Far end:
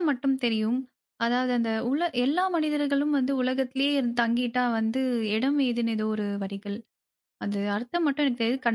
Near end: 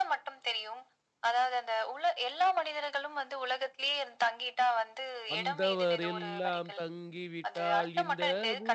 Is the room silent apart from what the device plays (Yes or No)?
No